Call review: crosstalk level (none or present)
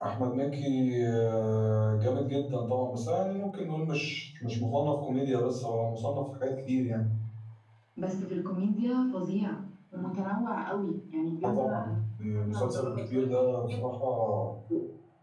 present